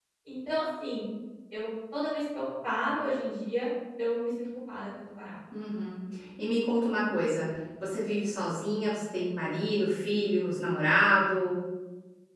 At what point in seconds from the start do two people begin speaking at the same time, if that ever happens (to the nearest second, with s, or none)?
none